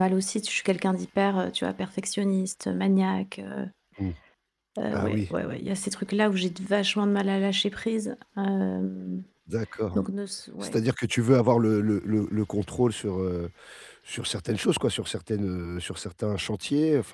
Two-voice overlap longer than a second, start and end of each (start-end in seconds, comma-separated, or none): none